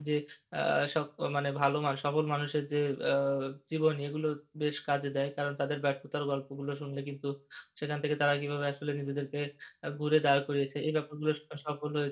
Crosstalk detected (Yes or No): No